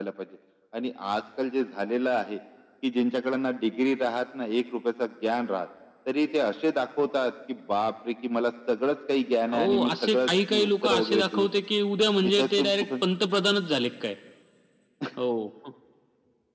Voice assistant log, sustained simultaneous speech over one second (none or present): present